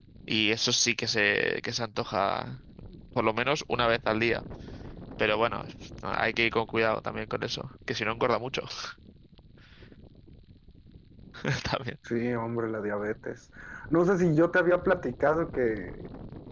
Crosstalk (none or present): none